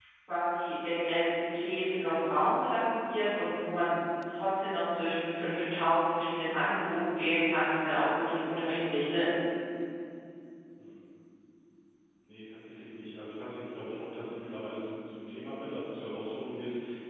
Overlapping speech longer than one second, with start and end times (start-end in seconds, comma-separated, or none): none